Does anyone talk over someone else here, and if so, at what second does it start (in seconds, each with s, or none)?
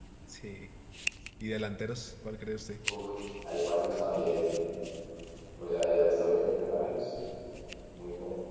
none